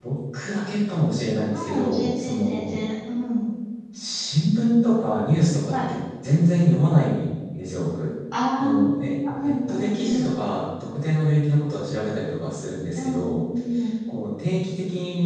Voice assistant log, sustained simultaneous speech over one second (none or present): present